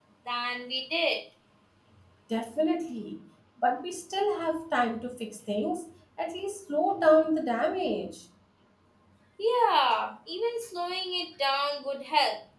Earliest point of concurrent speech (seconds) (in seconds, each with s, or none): none